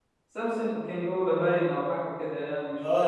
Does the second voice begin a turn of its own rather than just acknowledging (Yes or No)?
Yes